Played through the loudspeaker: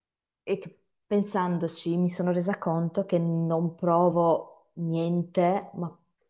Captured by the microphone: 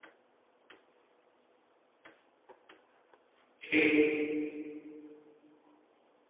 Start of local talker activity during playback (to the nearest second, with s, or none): 4 s